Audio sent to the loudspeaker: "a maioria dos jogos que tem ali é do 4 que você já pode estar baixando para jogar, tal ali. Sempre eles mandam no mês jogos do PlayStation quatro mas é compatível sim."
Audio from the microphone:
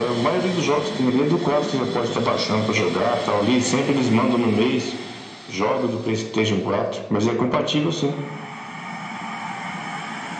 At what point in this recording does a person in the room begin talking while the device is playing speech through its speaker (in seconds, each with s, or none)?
none